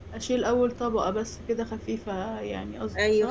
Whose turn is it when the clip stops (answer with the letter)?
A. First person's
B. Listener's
B